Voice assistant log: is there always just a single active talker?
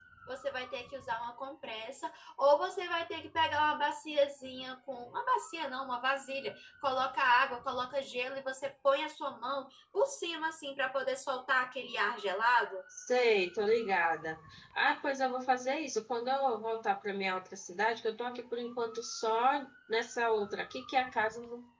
Yes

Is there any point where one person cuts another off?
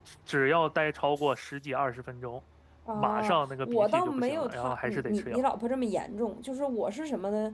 Yes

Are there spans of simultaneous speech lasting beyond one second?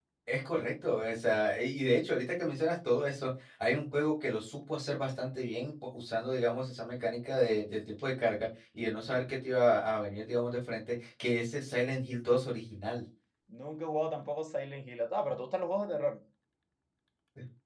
No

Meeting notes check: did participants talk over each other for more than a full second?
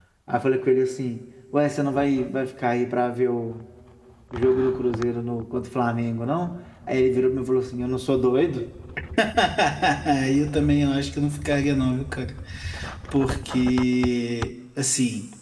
No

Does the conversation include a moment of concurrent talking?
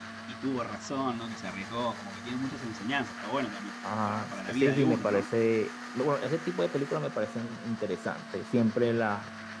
Yes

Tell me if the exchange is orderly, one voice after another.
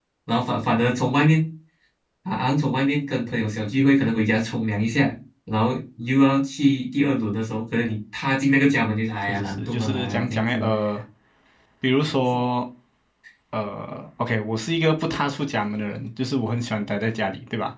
No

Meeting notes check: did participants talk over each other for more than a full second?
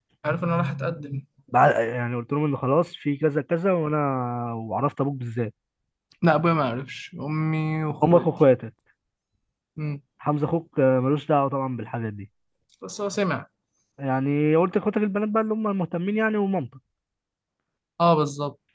No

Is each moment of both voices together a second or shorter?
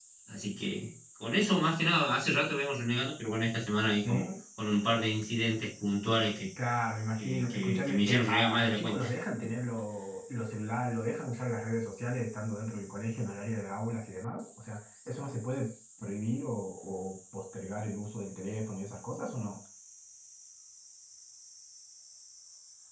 No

